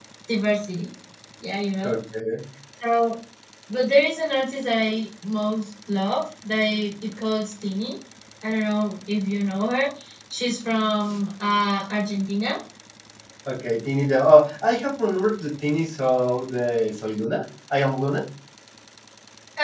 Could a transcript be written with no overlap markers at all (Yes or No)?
Yes